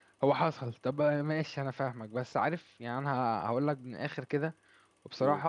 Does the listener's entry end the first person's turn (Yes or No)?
No